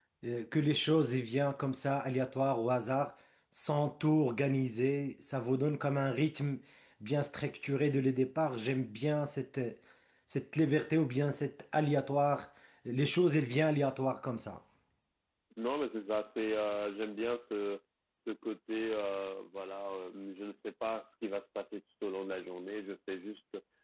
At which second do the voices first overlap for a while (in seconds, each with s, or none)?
none